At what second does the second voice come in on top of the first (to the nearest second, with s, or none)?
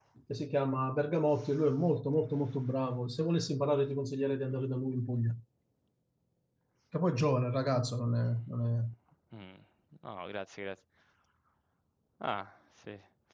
none